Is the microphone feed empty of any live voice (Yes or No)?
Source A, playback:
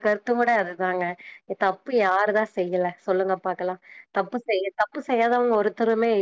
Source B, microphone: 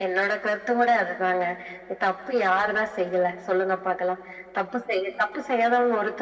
Yes